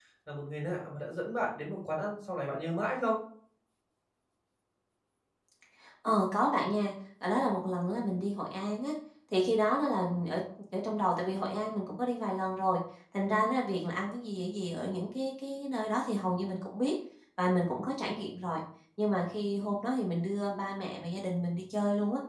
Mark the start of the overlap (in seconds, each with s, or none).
none